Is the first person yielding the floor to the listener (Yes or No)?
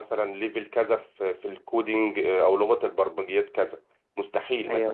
No